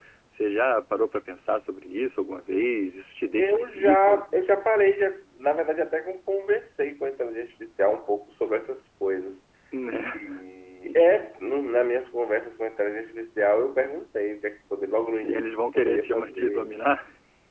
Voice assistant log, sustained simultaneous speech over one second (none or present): present